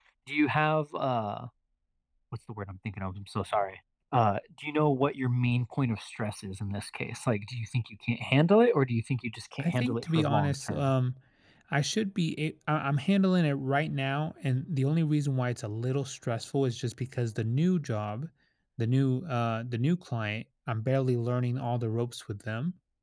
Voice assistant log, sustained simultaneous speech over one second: present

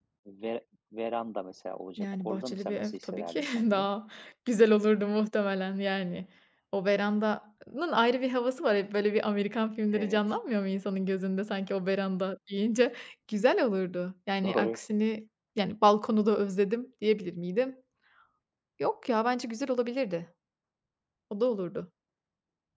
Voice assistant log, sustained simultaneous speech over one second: present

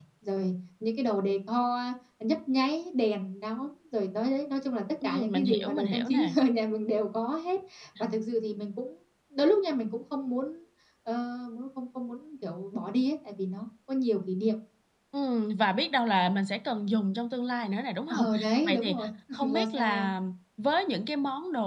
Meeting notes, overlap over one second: present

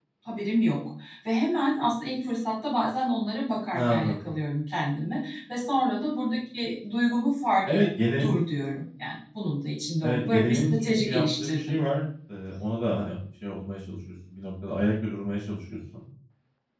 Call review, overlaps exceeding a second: present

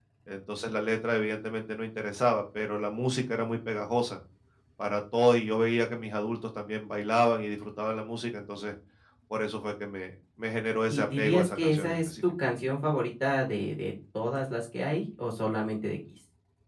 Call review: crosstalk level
present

